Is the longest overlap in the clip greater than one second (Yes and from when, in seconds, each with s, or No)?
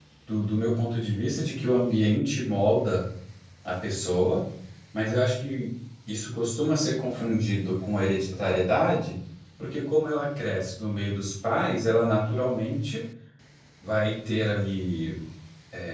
No